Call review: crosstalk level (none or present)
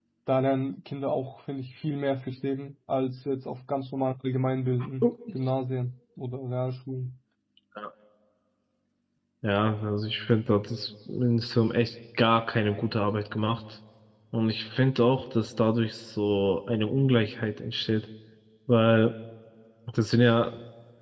none